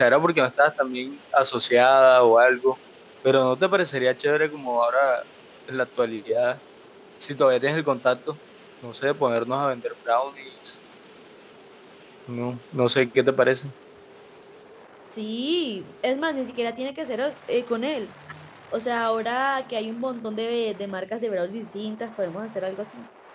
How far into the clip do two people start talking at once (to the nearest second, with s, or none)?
none